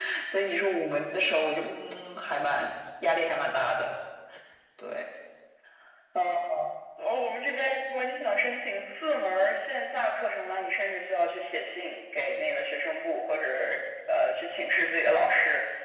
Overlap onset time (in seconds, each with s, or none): none